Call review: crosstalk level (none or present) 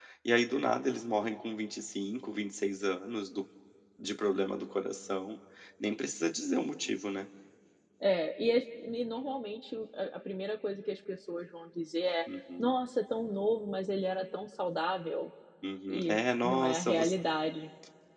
present